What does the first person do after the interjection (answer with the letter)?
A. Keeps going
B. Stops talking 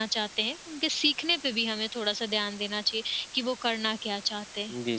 B